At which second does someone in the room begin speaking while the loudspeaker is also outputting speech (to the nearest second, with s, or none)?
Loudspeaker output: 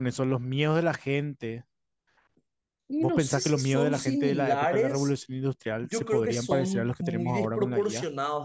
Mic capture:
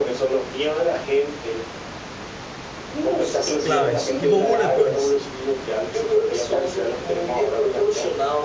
4 s